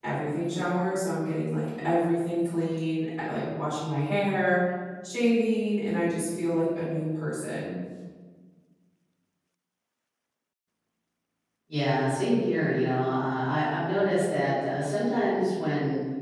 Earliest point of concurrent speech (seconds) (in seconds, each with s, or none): none